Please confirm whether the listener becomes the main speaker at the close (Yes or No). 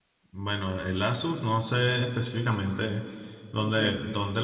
No